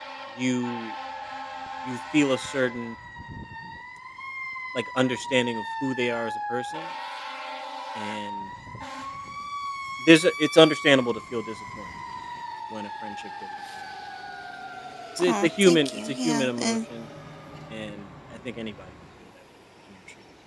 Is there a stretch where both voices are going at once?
Yes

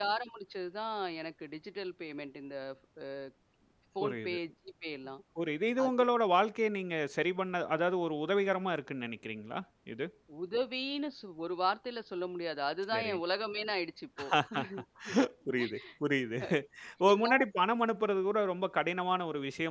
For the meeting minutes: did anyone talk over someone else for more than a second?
No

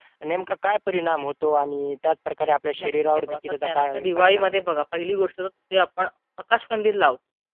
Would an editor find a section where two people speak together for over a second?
Yes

